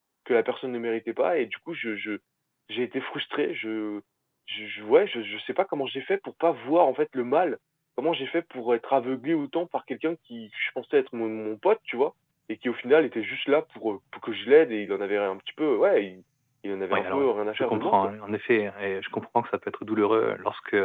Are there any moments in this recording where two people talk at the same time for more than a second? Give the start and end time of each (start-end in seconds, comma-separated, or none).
16.9-18.1